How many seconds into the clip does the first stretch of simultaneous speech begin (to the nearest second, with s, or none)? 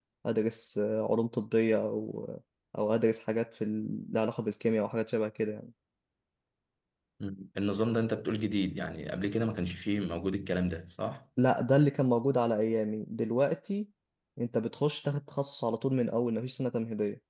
none